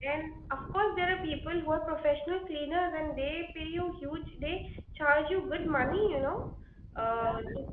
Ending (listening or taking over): listening